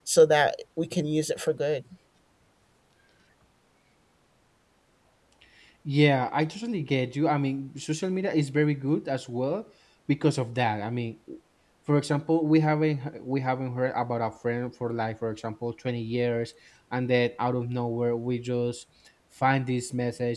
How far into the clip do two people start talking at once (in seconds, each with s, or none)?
none